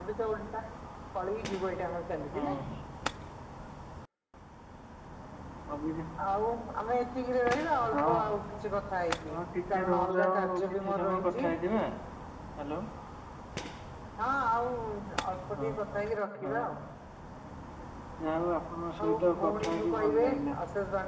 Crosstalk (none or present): present